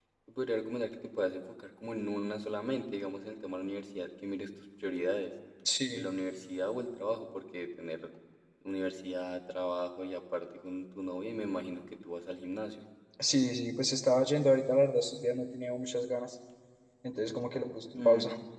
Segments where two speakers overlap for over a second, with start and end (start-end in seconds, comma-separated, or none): none